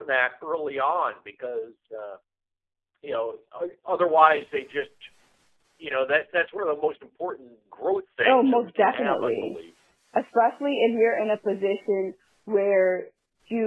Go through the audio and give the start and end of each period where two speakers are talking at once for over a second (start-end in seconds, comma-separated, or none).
8.2-9.5